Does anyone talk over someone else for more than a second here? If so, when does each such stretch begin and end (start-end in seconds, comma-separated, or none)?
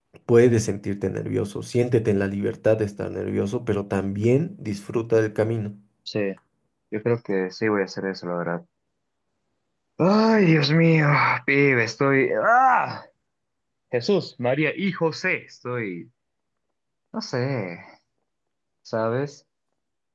none